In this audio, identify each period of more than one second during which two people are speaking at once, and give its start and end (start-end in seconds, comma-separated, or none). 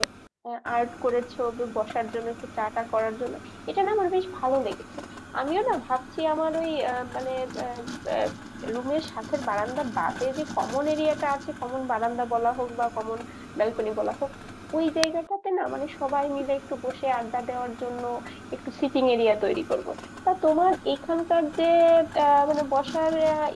none